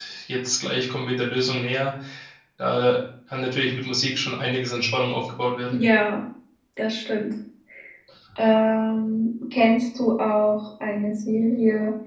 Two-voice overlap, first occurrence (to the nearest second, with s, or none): none